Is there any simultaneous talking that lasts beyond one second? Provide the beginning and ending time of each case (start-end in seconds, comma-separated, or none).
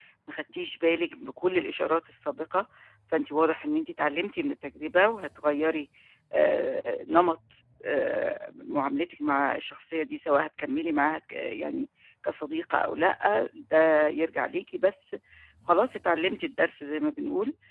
none